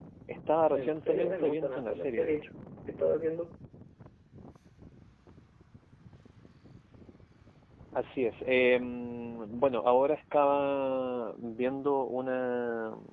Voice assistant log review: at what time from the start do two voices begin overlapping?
0.7 s

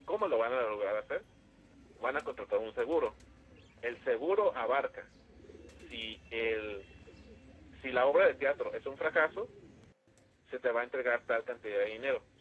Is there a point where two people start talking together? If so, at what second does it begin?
none

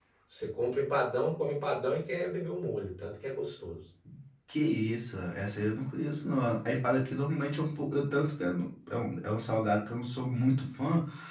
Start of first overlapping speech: none

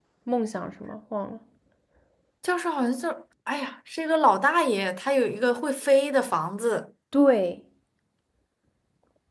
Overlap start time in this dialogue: none

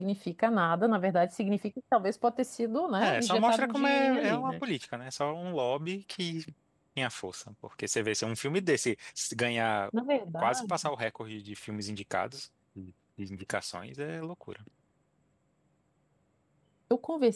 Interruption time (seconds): 3.0 s

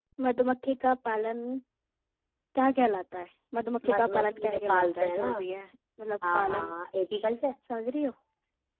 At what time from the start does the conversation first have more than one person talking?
3.9 s

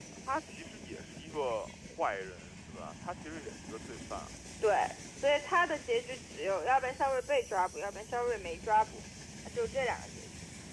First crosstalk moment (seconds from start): none

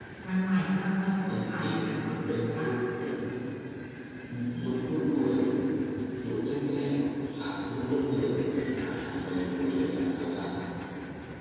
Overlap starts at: 1.3 s

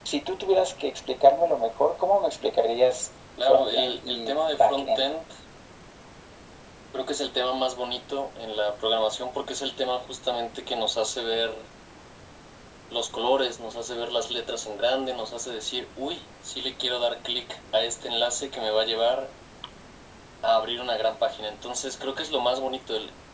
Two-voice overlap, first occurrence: 3.4 s

